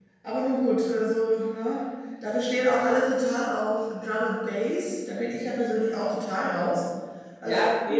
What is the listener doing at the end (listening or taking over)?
taking over